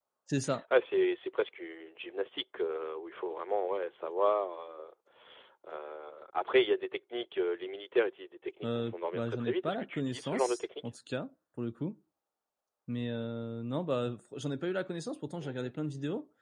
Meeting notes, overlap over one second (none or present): present